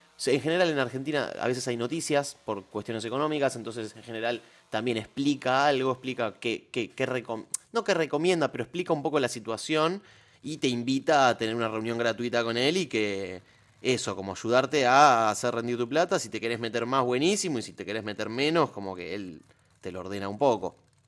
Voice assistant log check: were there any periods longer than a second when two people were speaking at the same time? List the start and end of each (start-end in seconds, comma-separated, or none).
none